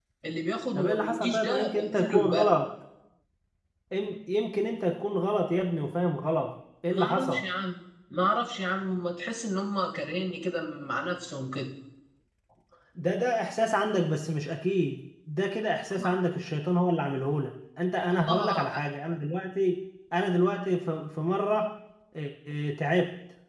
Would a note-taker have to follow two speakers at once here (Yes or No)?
Yes